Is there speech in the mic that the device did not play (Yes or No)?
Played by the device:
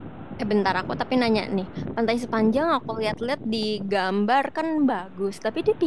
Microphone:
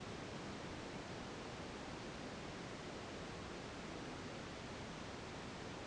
No